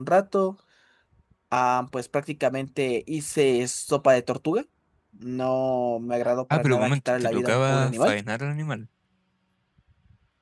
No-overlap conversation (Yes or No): No